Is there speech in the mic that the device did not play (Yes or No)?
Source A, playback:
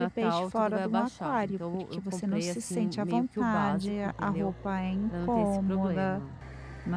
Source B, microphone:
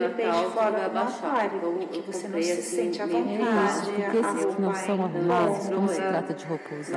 Yes